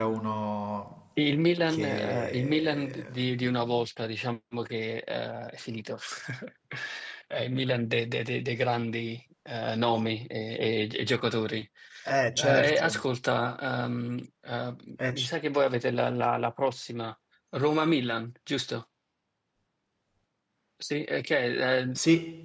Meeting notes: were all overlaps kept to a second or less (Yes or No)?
No